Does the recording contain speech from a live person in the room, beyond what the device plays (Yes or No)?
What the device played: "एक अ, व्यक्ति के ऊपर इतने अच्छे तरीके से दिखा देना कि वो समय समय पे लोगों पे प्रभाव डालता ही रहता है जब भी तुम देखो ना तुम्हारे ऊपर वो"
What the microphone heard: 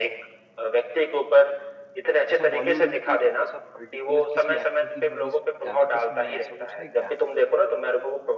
Yes